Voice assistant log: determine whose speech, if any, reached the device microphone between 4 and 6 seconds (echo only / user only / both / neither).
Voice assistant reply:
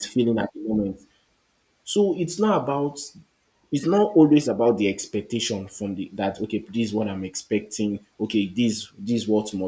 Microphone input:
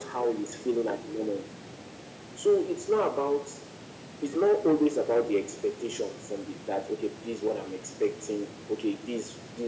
echo only